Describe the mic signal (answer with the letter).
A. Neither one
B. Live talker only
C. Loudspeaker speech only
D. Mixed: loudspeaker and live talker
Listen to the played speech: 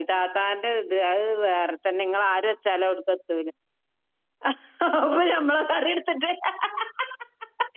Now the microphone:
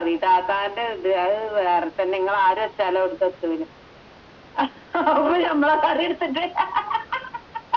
C